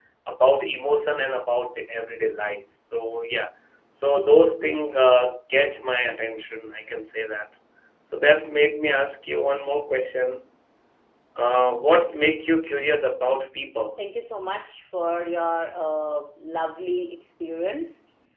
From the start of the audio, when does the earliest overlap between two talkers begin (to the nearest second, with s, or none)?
none